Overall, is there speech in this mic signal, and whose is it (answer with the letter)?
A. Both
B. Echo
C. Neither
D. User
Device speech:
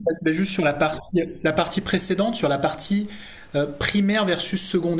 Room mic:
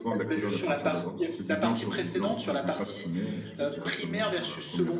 A